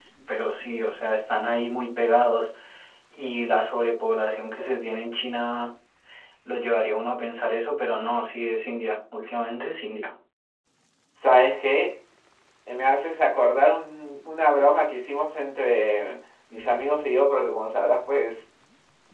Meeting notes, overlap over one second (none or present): none